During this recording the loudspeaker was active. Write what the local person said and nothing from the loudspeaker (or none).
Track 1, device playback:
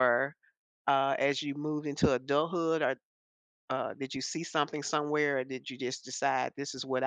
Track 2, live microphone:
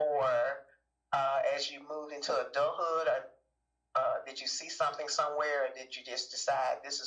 none